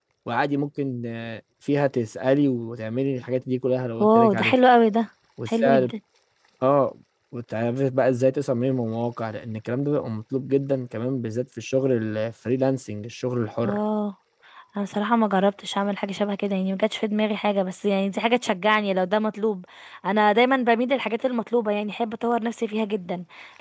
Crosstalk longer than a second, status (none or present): none